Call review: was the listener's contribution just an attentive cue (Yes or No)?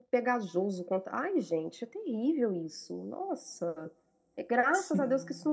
Yes